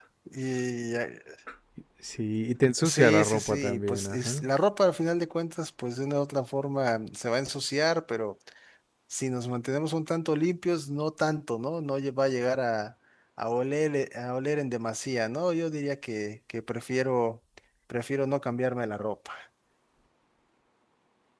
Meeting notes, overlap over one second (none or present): present